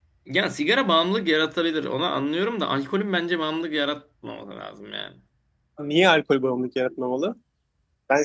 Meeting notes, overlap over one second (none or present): none